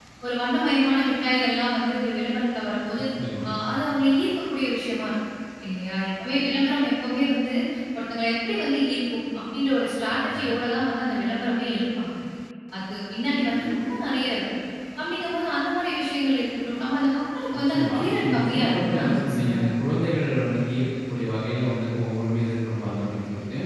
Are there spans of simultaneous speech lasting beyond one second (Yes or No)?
Yes